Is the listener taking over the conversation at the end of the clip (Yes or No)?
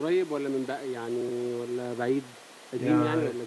Yes